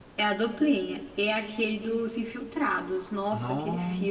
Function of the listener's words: taking over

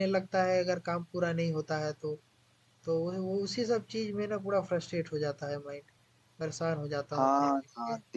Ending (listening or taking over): taking over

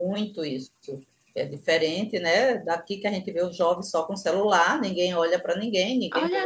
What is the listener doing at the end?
taking over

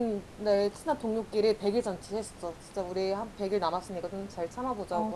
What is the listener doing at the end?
taking over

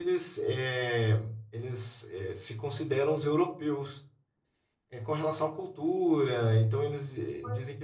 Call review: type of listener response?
taking over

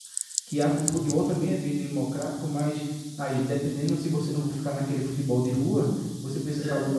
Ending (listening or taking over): listening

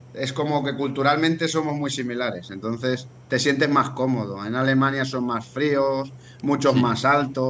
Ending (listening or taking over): listening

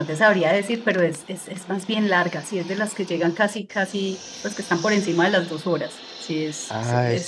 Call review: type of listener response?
taking over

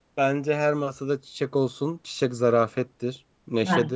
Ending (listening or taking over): listening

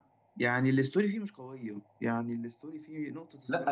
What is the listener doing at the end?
taking over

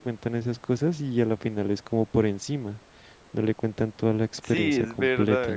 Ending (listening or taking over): taking over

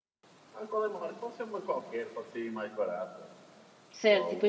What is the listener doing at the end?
taking over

